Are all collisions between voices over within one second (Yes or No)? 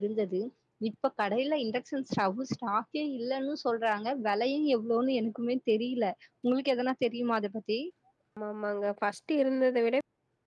Yes